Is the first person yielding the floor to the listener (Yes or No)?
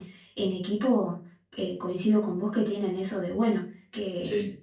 No